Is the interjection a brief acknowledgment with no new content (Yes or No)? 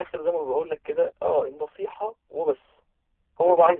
Yes